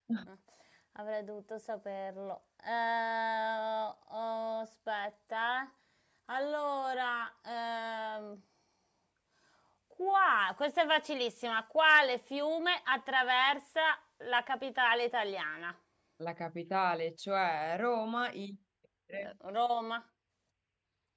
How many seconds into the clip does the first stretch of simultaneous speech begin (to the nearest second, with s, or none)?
none